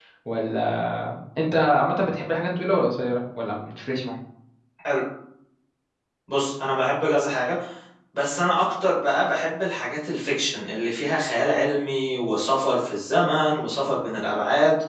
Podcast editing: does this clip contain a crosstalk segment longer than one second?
No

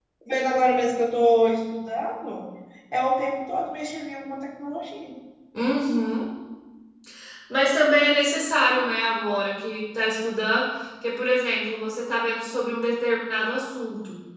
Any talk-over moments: No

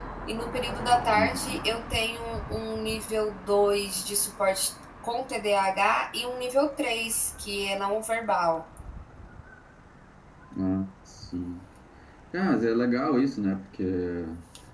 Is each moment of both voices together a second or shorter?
Yes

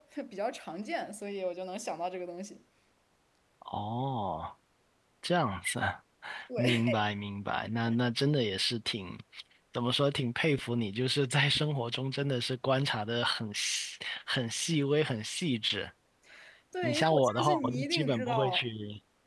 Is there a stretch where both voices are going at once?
Yes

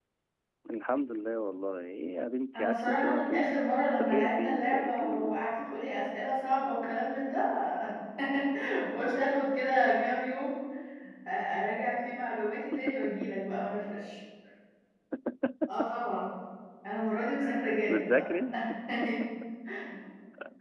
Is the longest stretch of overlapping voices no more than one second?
No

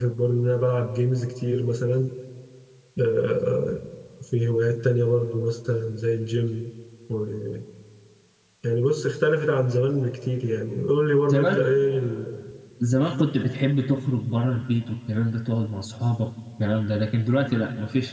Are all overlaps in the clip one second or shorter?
Yes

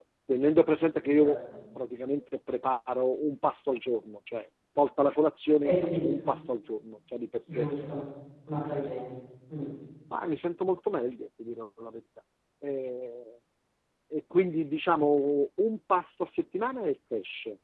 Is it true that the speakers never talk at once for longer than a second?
Yes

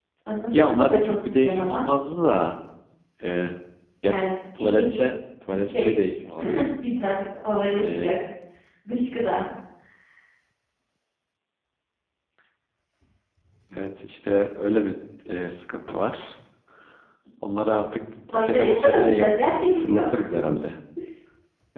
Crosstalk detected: Yes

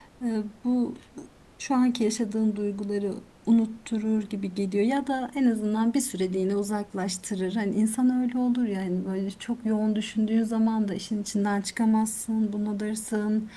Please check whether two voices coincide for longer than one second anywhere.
No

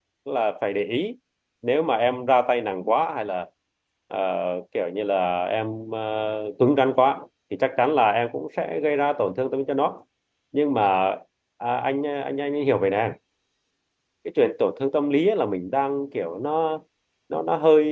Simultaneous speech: No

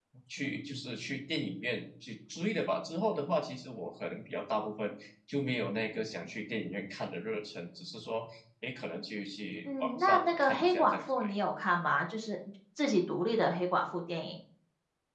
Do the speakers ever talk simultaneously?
Yes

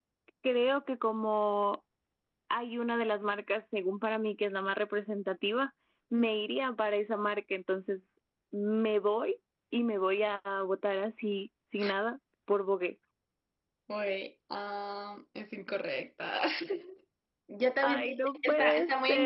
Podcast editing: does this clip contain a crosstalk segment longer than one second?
Yes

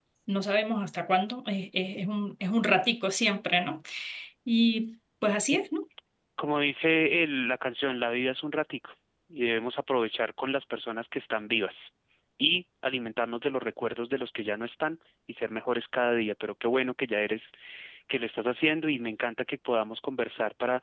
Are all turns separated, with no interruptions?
Yes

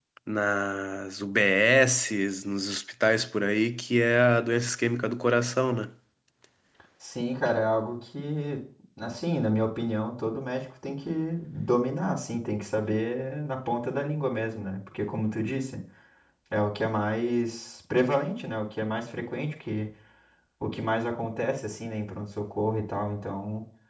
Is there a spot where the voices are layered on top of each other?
No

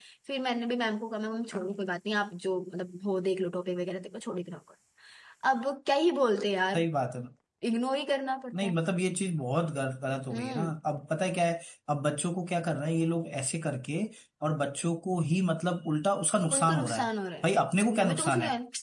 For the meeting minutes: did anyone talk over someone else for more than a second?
No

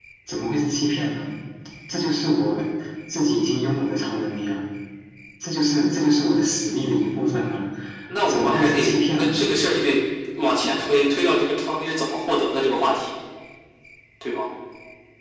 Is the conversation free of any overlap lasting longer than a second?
No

